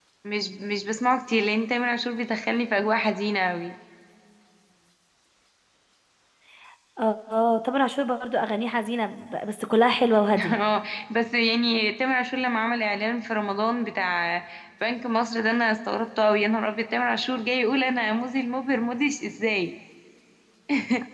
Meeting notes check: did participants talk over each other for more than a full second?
No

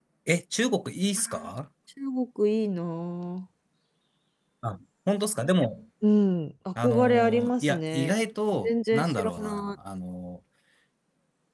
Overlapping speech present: Yes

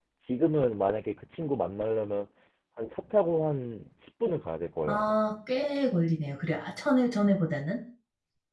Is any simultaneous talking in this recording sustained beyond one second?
No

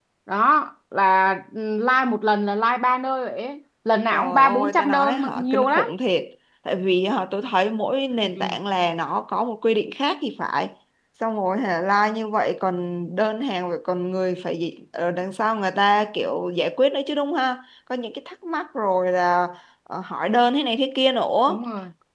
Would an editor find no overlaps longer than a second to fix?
No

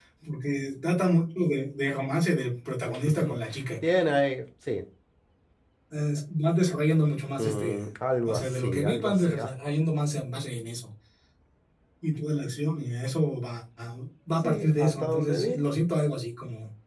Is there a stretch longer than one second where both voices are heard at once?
Yes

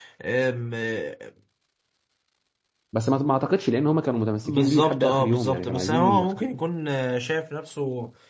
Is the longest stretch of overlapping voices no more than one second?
No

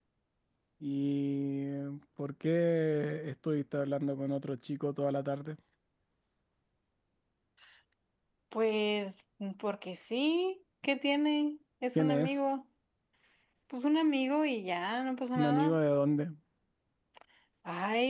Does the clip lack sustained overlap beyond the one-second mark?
Yes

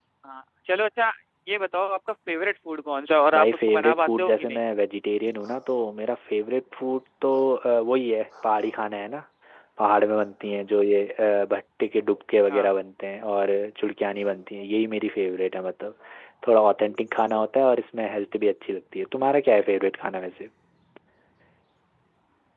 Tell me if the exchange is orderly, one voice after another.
No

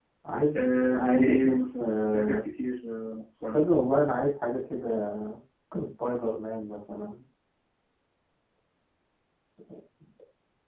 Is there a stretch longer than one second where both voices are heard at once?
Yes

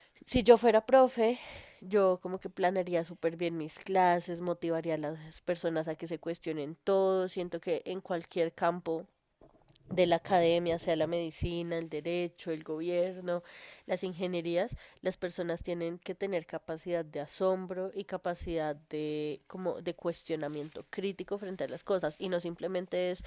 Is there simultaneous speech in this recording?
No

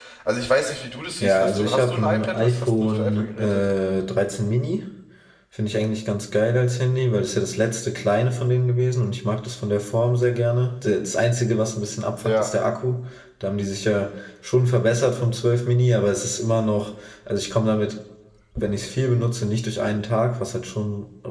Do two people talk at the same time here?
Yes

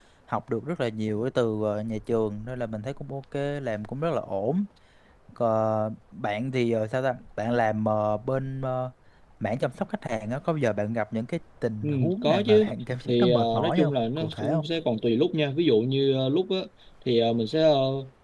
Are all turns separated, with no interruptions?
No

